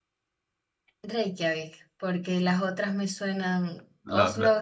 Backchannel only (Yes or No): Yes